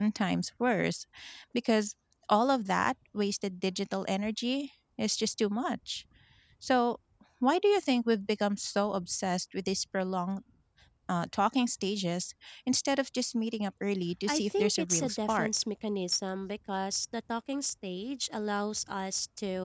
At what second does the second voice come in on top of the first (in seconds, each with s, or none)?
14.3 s